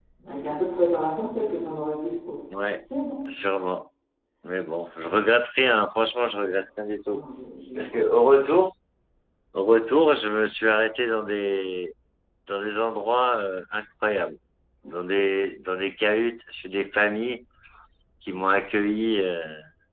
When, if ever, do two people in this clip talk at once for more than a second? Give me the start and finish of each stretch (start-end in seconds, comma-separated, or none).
none